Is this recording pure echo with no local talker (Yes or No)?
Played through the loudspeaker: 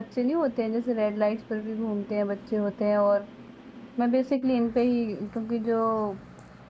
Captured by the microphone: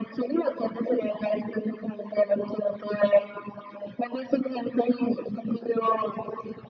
Yes